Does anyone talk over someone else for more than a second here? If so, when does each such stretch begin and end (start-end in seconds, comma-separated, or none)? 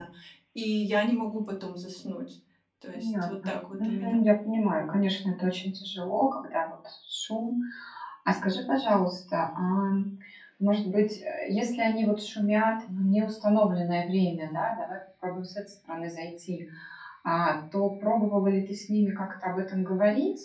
2.9-4.2